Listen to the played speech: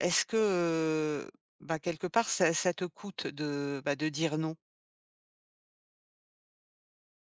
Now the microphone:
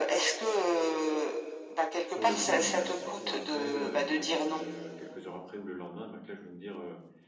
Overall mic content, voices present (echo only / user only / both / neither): both